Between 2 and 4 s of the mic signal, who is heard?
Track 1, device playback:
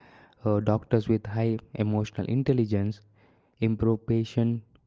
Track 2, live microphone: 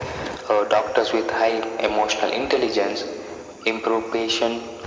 echo only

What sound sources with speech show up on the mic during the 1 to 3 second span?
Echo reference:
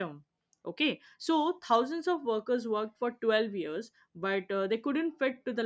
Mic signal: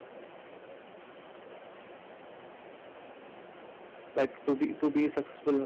neither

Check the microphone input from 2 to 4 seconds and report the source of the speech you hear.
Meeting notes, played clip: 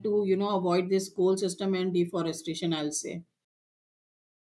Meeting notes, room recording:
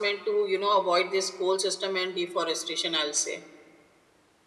echo only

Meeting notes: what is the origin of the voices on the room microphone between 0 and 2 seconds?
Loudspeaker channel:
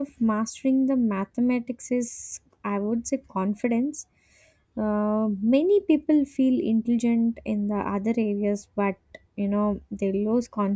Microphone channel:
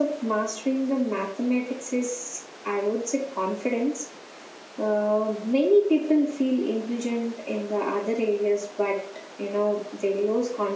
echo only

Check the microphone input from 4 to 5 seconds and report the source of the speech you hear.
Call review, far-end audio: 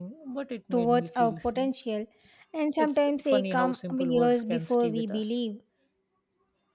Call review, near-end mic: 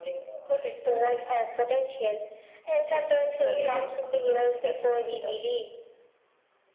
echo only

